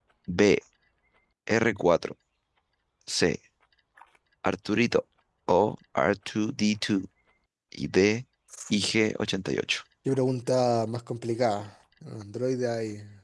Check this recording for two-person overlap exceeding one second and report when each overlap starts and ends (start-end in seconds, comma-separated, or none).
none